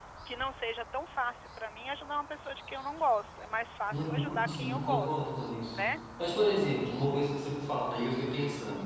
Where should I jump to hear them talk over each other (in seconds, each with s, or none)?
3.9 s